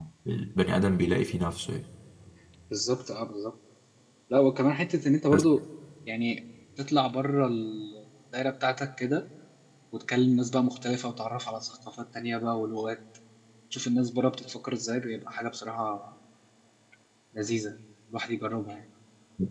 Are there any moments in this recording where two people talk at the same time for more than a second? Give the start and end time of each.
none

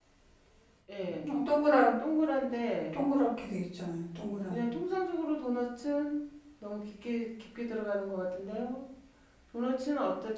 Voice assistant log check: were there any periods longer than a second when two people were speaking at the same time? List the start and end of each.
none

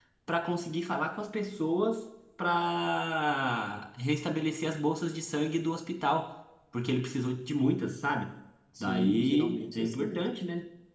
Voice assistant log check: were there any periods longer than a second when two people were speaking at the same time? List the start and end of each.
8.8-10.2

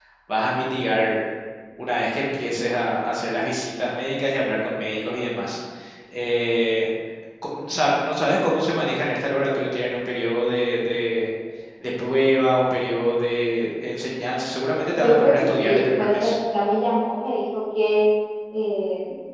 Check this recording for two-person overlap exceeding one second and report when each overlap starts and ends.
15.0-16.3

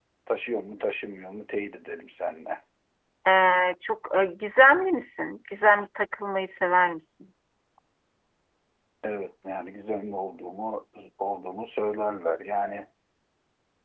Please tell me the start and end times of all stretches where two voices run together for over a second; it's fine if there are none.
none

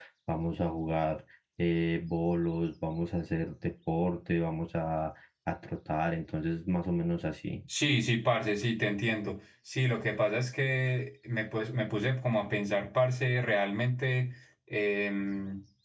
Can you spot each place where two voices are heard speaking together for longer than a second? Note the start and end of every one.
none

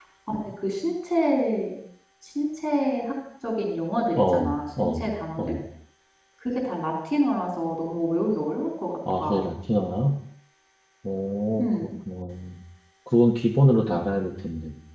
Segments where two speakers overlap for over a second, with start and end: 4.2-5.5

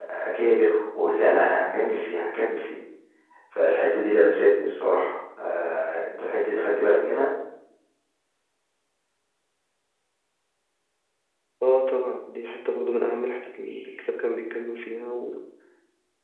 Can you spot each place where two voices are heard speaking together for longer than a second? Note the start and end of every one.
none

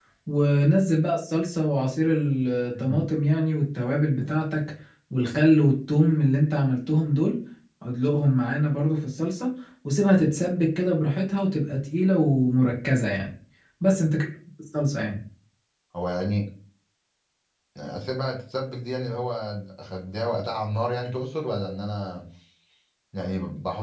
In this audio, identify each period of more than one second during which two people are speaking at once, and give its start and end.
none

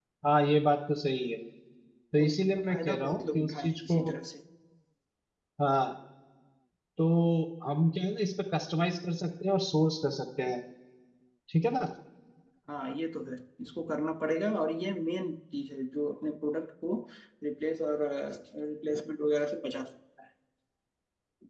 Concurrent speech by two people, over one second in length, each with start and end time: 2.2-4.0

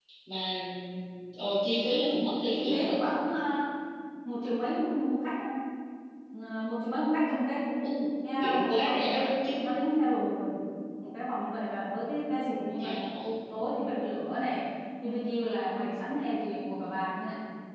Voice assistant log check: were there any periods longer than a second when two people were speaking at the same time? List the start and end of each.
8.3-9.7

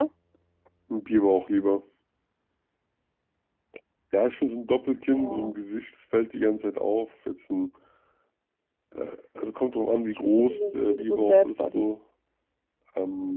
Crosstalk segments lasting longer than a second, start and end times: 10.2-11.9

